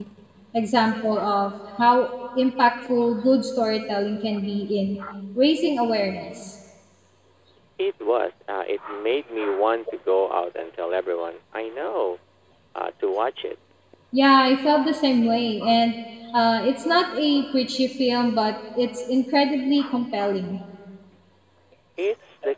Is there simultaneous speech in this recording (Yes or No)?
No